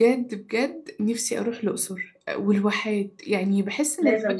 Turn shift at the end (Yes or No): No